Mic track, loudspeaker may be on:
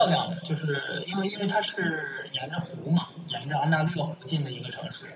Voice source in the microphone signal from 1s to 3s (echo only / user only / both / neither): echo only